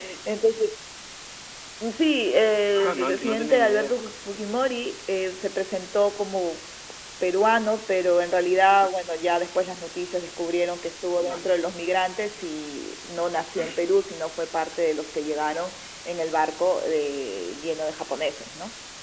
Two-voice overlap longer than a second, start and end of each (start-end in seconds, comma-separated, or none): 2.7-4.0